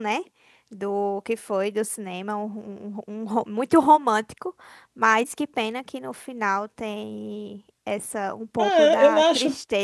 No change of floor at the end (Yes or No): No